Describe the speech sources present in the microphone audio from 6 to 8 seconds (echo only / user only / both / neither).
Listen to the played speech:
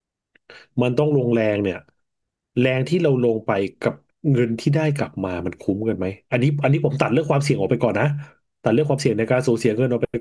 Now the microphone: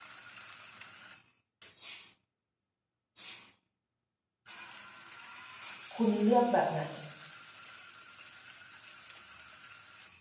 user only